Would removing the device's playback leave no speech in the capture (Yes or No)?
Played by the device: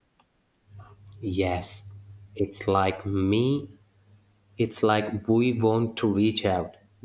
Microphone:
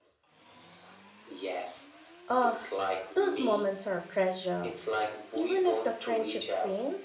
No